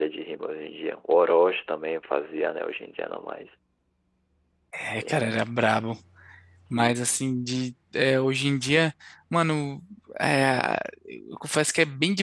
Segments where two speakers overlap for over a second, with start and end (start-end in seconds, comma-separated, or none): none